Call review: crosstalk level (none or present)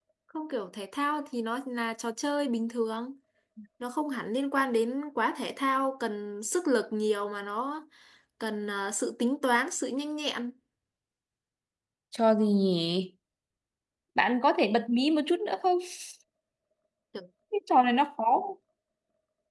none